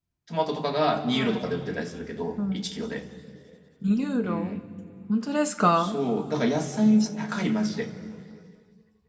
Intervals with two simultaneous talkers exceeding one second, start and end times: none

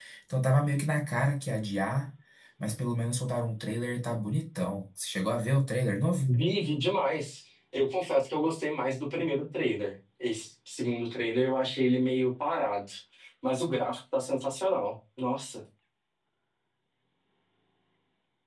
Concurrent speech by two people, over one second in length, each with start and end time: none

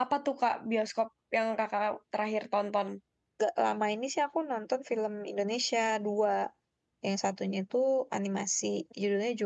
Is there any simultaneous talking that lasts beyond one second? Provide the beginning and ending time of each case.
none

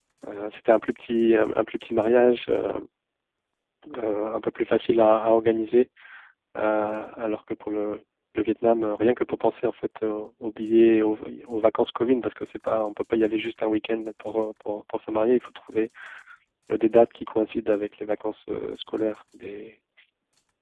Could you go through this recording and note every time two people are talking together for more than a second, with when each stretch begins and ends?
none

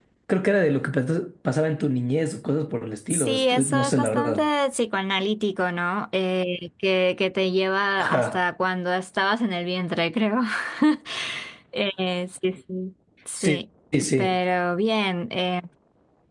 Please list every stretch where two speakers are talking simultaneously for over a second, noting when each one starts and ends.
3.1-4.5

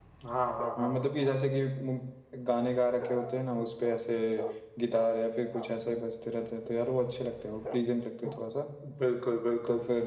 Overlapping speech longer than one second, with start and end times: none

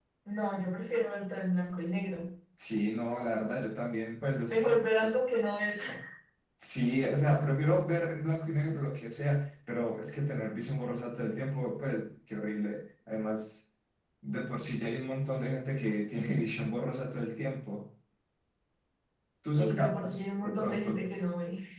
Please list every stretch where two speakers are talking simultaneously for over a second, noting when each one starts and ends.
19.6-21.0

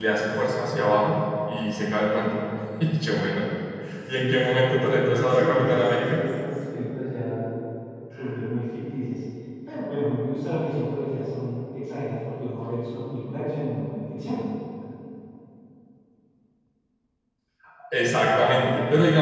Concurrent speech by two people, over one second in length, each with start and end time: 4.2-6.2

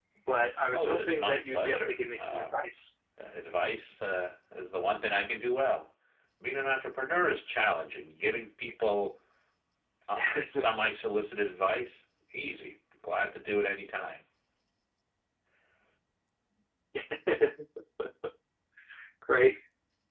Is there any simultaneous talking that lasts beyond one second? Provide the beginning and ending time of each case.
0.7-2.5

